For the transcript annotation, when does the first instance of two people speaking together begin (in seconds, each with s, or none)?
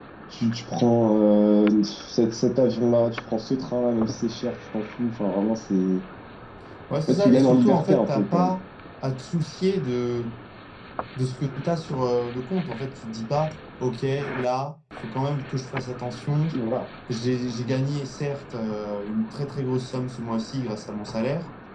7.1 s